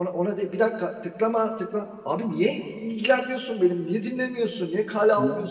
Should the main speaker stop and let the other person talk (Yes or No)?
No